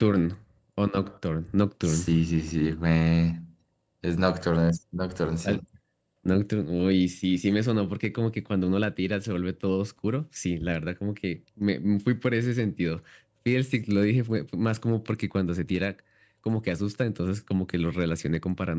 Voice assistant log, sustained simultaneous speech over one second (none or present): none